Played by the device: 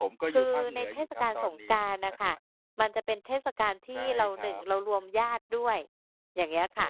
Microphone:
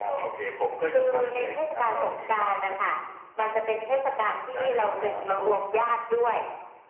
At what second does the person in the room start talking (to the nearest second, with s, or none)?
5 s